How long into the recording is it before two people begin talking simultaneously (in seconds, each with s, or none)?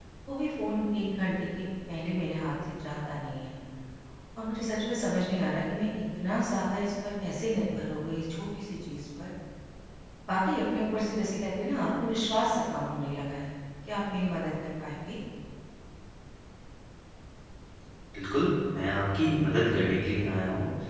none